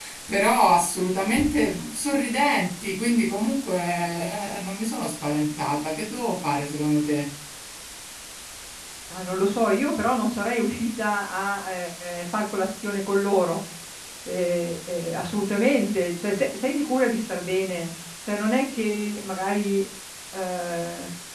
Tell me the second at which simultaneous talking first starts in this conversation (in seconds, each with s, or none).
none